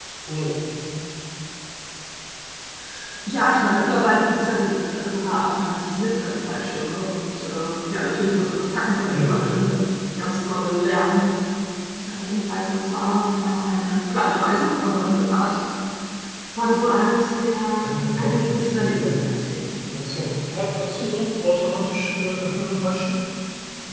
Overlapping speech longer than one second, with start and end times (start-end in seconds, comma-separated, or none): 17.8-19.3